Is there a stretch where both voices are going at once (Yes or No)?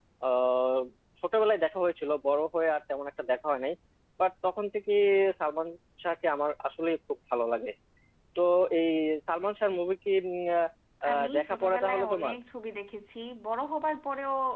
Yes